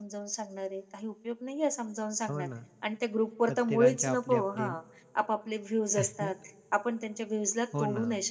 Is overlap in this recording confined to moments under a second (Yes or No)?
No